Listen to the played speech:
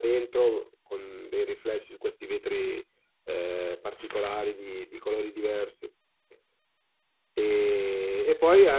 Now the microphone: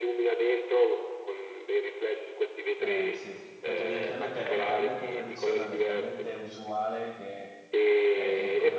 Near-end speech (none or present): present